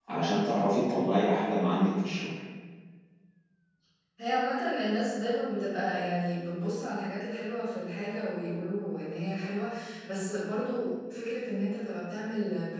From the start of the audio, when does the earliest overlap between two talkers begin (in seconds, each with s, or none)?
none